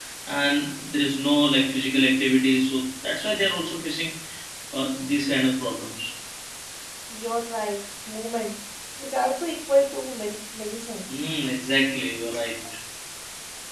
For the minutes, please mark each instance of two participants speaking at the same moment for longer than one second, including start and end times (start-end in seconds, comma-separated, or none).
none